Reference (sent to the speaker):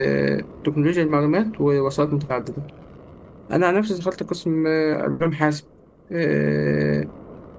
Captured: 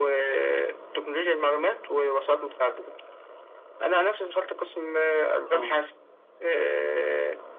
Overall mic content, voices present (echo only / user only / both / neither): both